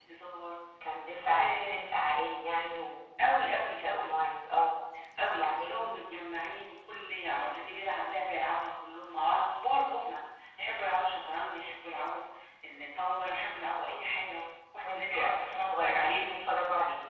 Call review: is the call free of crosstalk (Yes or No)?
No